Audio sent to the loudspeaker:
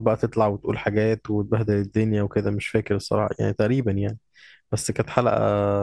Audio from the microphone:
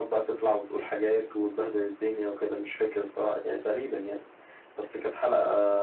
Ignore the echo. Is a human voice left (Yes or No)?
No